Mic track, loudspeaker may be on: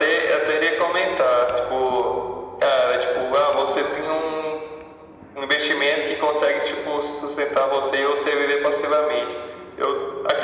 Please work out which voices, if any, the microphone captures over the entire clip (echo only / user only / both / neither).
echo only